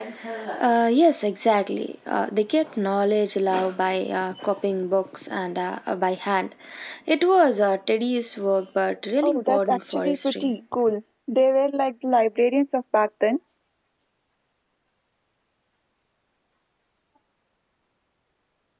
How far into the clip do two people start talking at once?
9.2 s

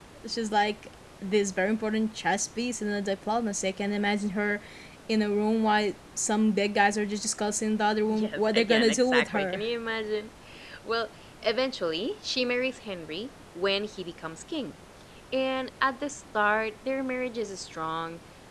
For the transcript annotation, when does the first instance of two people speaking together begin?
8.1 s

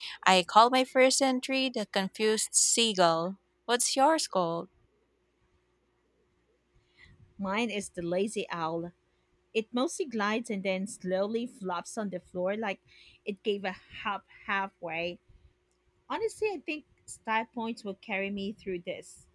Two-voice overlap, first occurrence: none

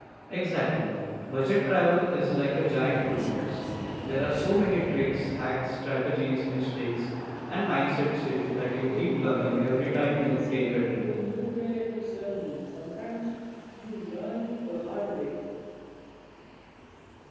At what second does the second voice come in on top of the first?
8.9 s

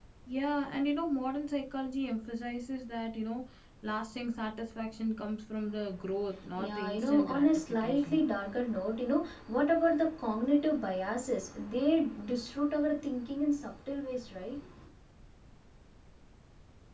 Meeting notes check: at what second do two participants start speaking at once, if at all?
6.6 s

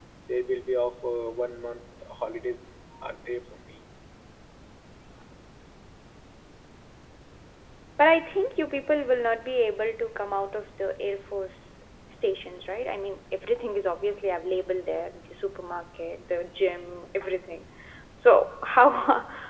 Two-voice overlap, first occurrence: none

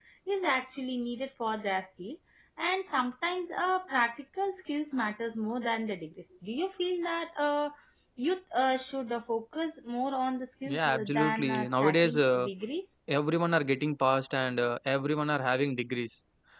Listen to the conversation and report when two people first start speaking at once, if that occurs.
10.7 s

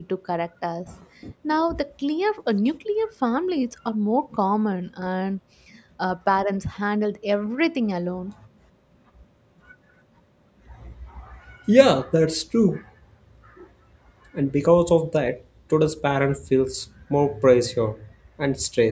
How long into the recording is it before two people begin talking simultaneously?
none

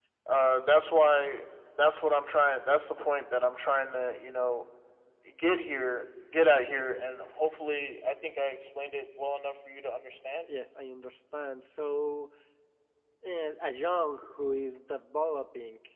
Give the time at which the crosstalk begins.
none

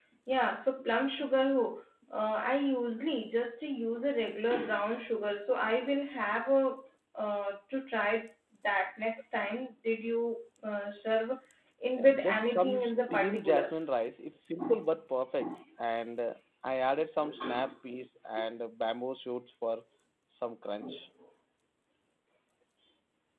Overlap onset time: 12.0 s

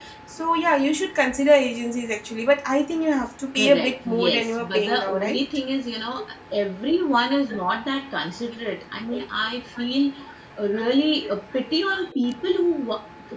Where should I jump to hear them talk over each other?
3.6 s

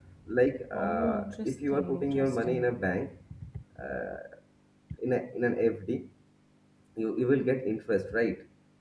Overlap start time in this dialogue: 0.7 s

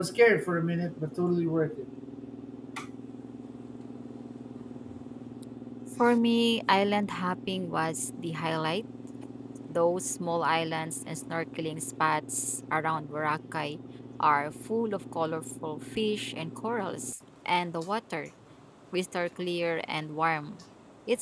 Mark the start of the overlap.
none

